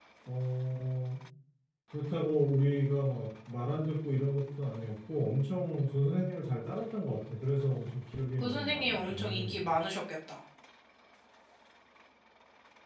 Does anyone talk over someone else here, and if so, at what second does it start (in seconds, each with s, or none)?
8.4 s